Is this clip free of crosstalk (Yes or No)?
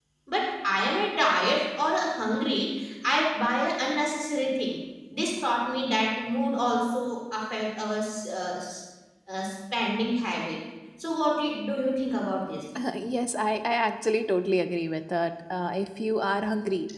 Yes